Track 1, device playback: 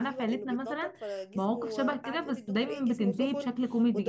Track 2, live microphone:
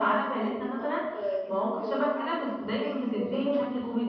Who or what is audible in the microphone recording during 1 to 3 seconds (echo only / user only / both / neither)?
echo only